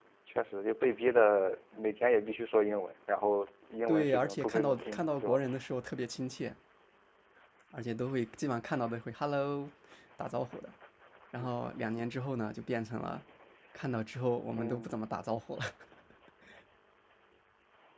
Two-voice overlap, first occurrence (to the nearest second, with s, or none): 4 s